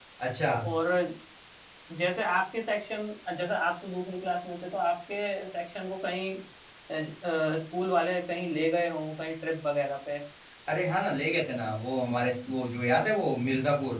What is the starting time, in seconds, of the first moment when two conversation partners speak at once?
none

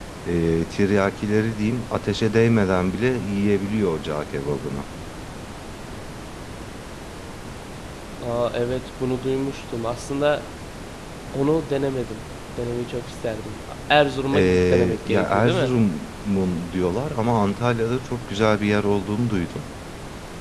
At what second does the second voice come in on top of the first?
14.3 s

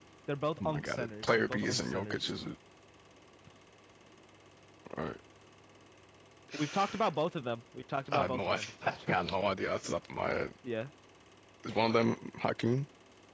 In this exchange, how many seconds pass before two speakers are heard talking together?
0.6 s

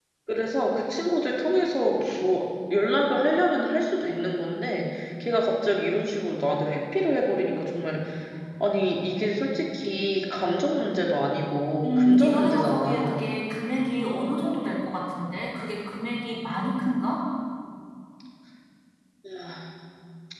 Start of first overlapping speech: 11.8 s

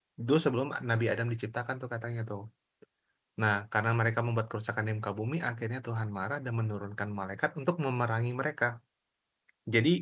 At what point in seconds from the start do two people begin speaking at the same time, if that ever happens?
none

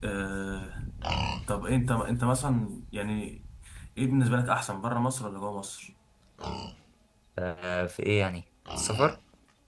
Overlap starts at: none

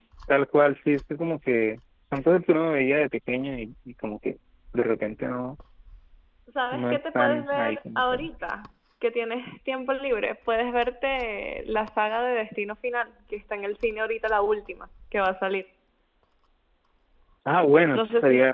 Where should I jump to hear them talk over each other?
6.7 s

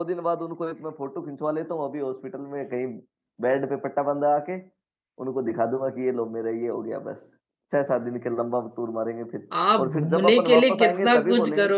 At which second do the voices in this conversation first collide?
9.5 s

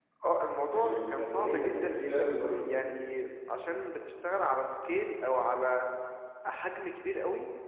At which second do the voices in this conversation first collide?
0.7 s

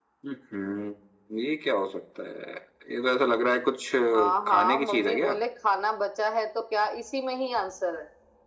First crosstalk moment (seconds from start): 4.0 s

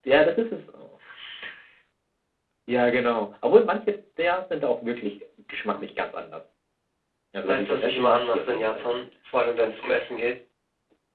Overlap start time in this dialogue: 7.5 s

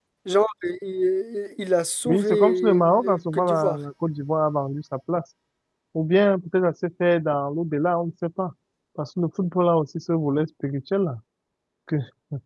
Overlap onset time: 2.0 s

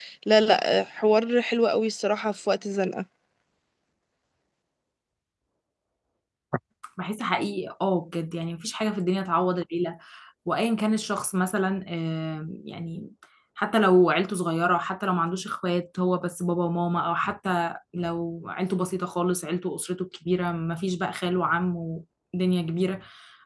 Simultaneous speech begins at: none

